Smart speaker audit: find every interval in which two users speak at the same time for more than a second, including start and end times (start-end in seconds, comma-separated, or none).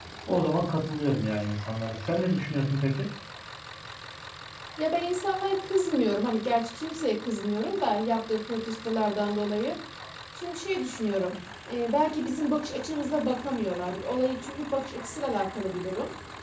none